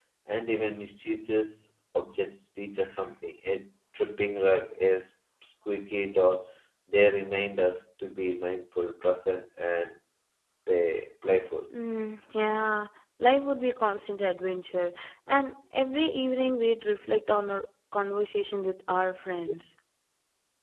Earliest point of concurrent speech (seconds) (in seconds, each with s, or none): none